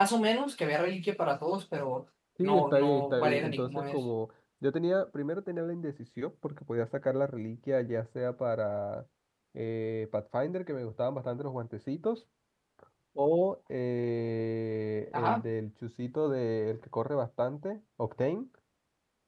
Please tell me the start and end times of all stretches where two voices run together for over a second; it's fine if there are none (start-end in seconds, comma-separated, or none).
2.4-4.0